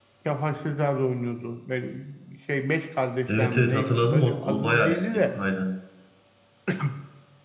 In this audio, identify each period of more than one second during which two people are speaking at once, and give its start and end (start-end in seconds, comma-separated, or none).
3.3-5.3